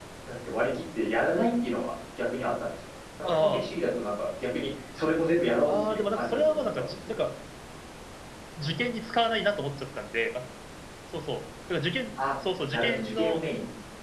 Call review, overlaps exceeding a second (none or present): present